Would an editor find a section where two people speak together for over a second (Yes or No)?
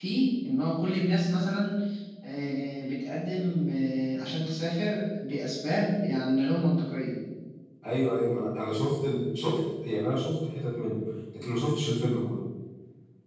No